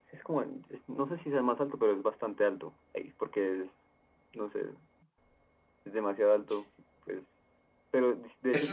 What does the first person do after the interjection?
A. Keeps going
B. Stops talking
B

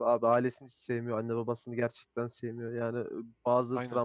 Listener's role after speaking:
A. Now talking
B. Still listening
B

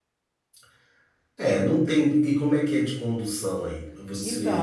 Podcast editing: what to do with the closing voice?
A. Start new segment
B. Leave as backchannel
A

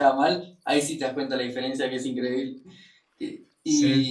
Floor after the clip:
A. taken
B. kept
B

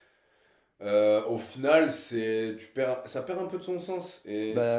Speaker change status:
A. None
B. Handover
A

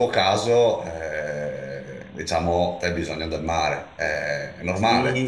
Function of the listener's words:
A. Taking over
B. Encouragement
A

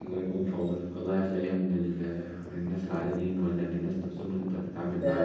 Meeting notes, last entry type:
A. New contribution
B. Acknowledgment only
A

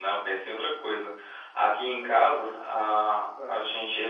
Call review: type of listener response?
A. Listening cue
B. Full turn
A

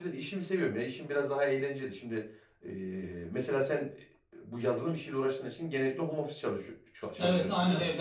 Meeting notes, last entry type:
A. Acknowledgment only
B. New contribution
B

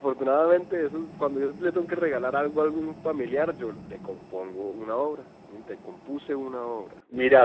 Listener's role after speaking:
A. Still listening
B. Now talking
B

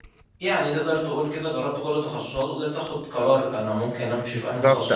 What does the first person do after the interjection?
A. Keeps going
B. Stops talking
B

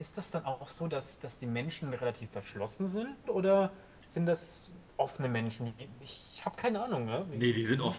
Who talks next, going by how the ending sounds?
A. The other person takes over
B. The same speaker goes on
A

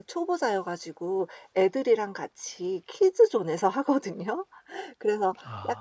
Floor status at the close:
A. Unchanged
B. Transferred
A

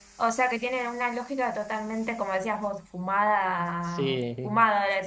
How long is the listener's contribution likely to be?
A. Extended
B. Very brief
B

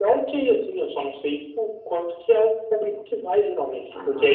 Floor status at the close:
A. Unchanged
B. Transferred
B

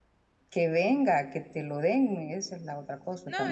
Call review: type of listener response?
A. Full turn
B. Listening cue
A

